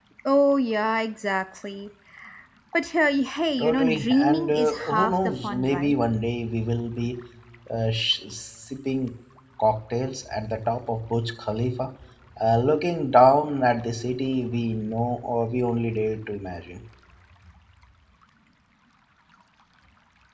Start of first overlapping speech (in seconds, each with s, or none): 3.6 s